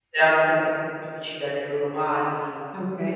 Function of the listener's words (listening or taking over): taking over